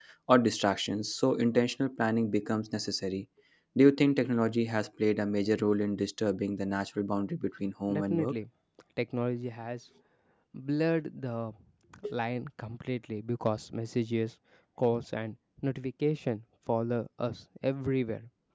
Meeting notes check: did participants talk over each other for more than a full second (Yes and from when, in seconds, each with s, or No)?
No